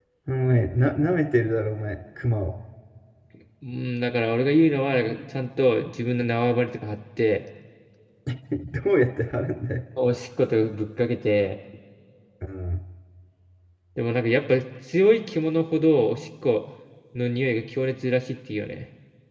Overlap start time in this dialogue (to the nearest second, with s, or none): none